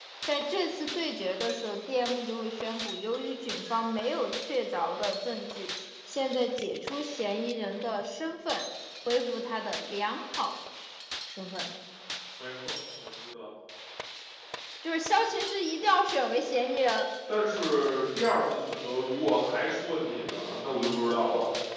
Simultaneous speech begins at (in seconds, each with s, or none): none